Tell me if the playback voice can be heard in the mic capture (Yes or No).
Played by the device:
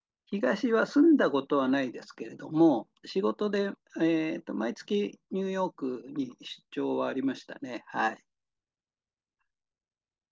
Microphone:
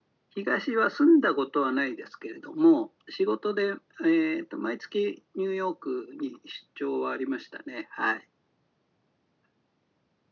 Yes